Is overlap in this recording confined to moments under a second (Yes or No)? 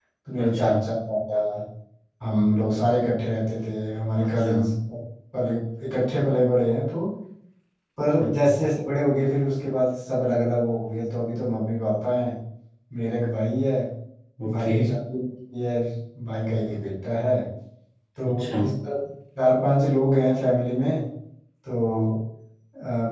Yes